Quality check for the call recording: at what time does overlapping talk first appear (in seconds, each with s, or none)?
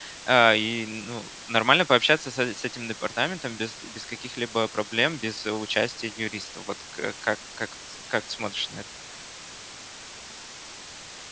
none